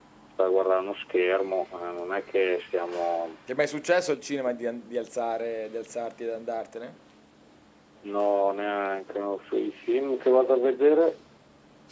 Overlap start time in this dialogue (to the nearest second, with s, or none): none